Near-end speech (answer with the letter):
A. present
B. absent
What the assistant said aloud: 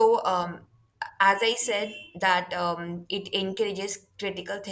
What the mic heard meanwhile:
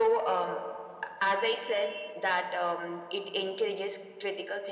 B